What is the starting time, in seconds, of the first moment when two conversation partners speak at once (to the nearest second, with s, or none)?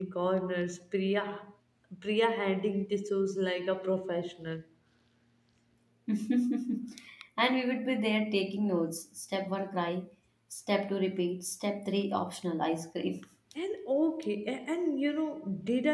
none